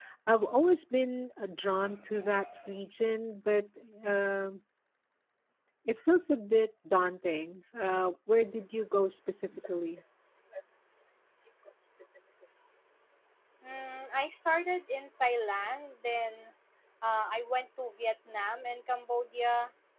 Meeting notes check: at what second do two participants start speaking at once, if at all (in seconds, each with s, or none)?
none